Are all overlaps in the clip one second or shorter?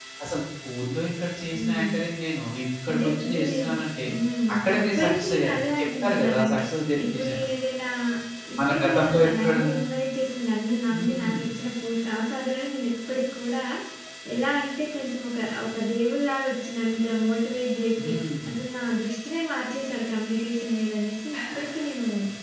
No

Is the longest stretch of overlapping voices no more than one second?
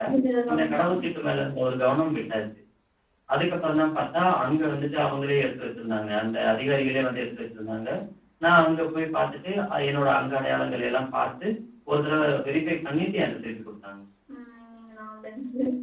Yes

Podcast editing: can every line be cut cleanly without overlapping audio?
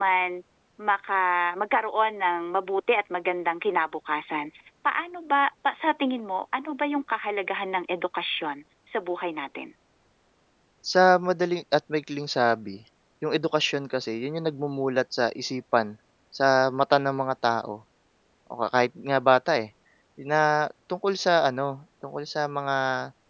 Yes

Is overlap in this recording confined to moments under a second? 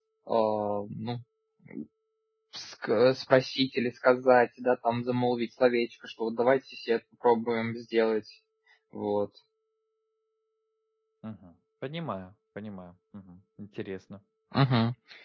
Yes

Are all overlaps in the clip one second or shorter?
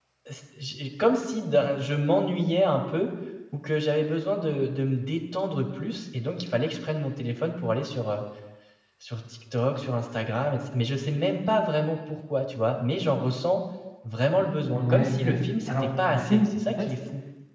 No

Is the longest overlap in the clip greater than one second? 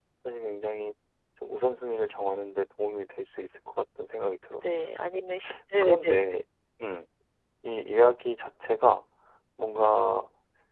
No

